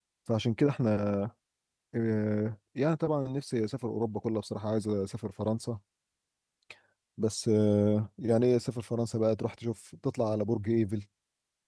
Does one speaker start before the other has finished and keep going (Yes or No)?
No